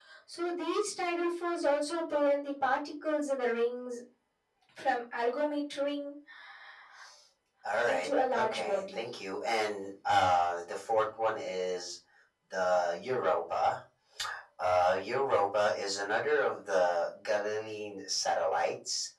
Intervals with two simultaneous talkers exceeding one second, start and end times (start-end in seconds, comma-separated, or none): 7.9-9.1